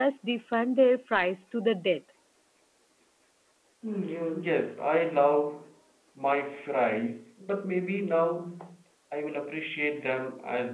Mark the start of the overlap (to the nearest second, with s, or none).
none